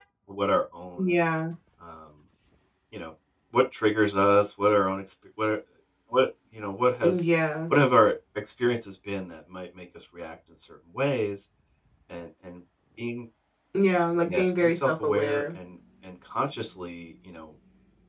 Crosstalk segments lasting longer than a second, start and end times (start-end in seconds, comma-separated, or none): 14.2-15.6